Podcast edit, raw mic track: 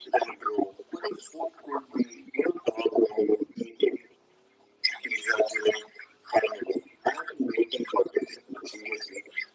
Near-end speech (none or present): none